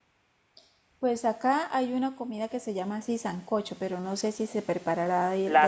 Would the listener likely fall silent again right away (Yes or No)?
No